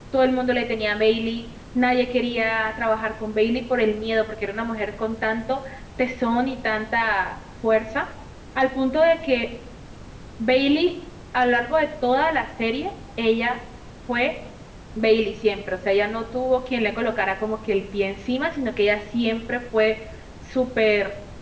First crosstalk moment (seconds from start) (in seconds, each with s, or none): none